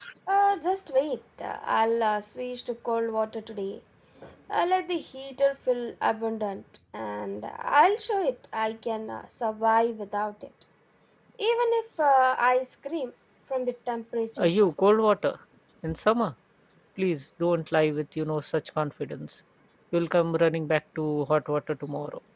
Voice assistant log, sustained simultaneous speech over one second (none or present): none